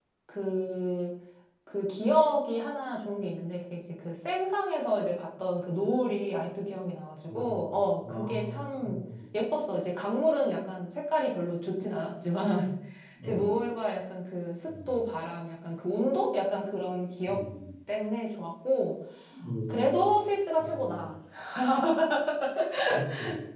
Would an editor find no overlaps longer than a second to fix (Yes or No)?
No